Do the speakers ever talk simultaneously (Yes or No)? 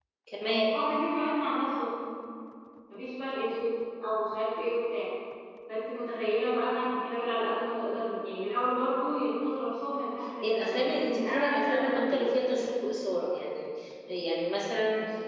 Yes